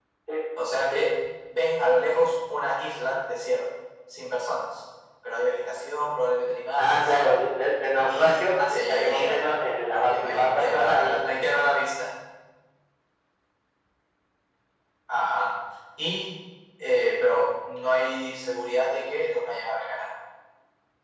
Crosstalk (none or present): present